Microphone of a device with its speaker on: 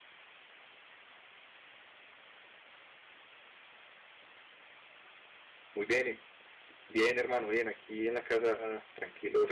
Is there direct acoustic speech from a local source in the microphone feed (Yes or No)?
Yes